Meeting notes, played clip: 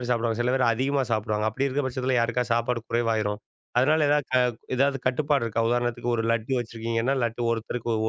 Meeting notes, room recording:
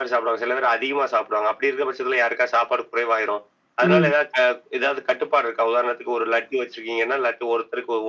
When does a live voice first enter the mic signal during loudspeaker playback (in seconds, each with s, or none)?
3.8 s